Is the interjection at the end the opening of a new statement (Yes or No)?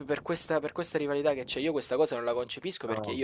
No